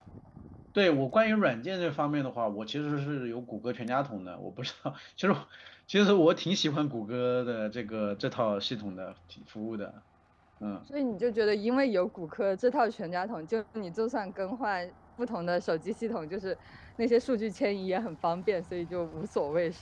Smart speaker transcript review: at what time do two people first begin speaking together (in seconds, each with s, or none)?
none